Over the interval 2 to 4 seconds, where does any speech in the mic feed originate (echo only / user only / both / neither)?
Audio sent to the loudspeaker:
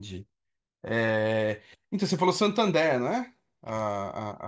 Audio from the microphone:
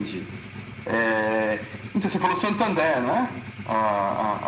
echo only